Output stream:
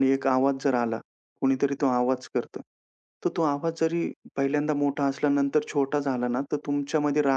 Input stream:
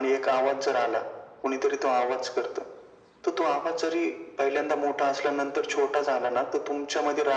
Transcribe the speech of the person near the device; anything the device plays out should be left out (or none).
none